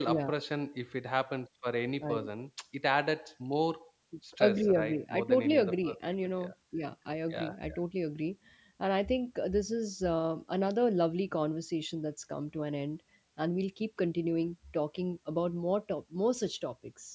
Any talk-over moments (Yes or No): Yes